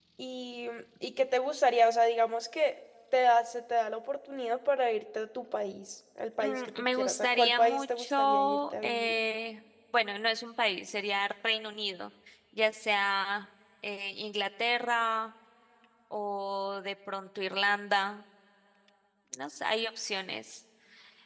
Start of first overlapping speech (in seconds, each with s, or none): 6.4 s